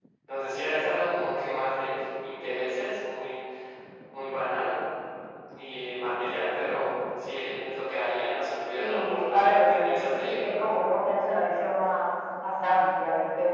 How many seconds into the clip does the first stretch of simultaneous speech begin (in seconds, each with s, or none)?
8.8 s